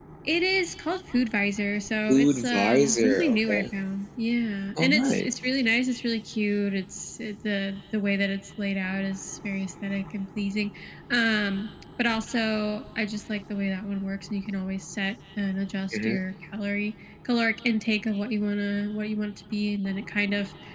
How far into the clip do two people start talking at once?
2 s

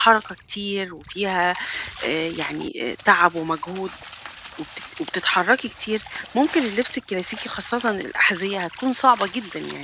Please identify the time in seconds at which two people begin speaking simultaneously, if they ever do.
none

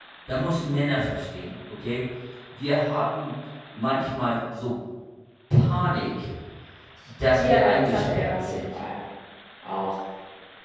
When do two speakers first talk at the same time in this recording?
7 s

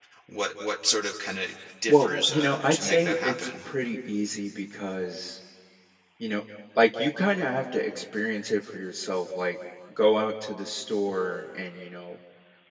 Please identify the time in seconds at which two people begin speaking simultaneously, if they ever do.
2 s

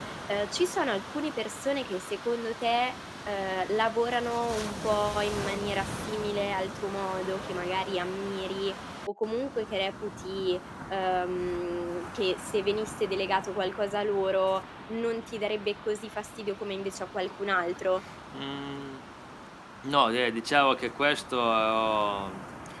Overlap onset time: none

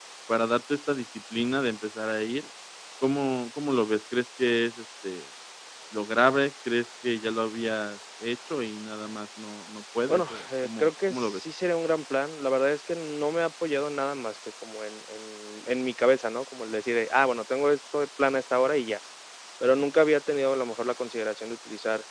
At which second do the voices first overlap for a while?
10 s

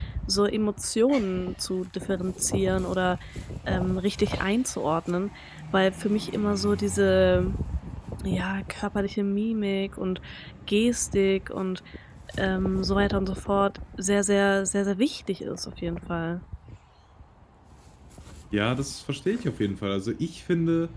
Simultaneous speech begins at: none

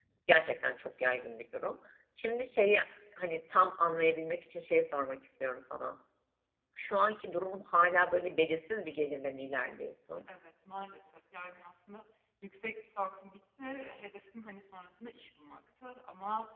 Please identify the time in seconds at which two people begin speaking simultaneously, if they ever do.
none

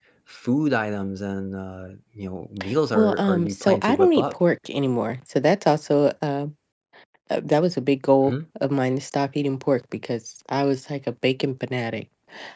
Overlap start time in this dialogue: 3 s

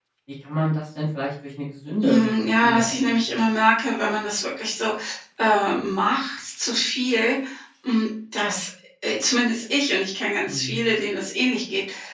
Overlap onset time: 2 s

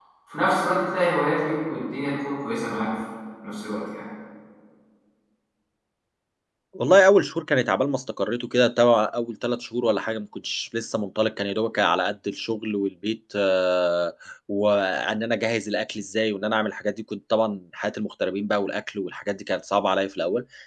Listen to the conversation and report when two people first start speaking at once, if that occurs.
none

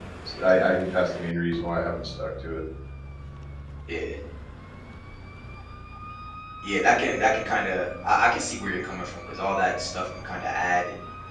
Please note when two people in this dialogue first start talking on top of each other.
none

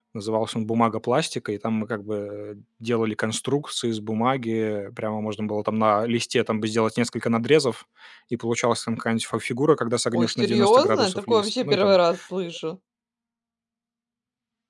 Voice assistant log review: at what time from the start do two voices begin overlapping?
10 s

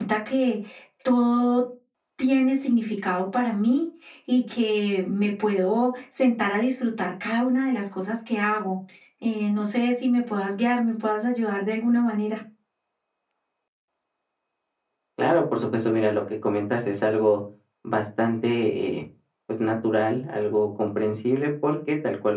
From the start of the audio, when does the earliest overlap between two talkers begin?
none

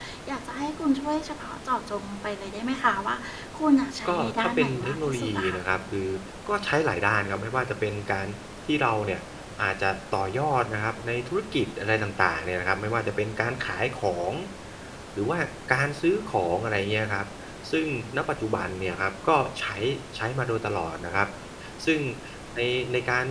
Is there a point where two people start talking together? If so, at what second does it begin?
4 s

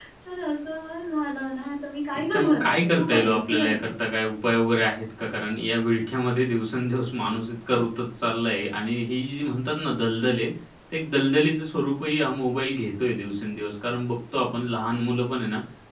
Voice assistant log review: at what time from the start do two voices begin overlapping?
2 s

